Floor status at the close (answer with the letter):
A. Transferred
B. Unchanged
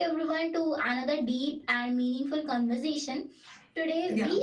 B